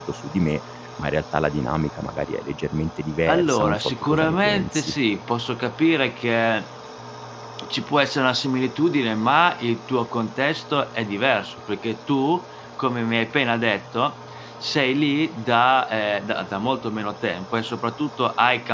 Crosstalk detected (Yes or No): Yes